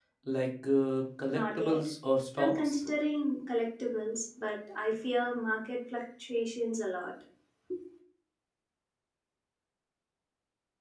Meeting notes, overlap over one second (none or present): none